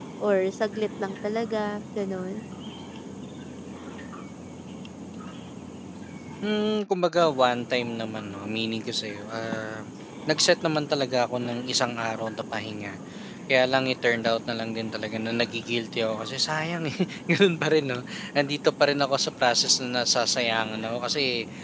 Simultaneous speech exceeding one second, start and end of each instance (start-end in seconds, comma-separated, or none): none